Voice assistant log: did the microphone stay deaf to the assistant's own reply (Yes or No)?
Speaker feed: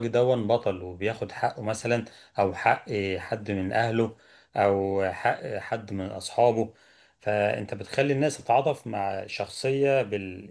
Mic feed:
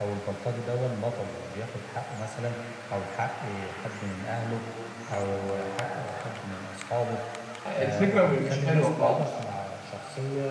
No